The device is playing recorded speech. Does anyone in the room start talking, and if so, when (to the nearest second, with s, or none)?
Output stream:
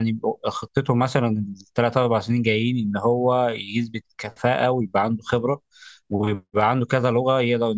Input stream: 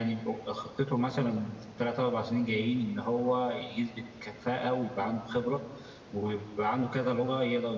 none